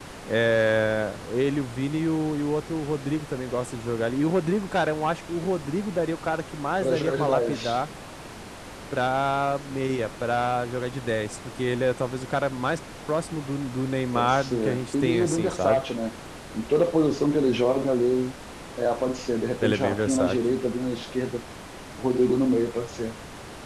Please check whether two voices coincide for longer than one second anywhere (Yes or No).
Yes